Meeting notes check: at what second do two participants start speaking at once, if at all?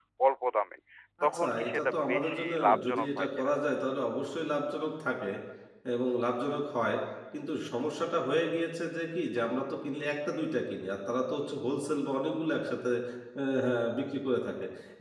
1.3 s

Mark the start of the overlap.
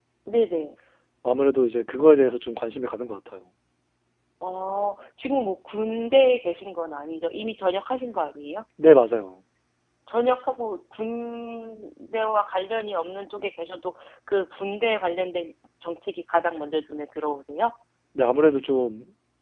none

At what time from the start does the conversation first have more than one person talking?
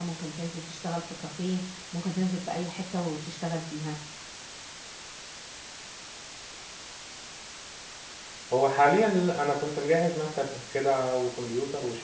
none

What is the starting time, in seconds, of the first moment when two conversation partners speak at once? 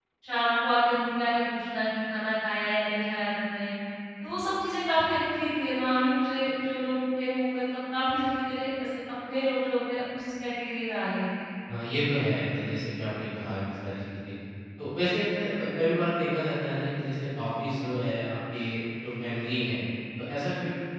none

